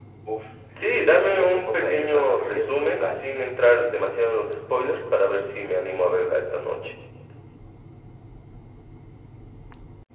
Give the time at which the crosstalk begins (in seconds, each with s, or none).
1.0 s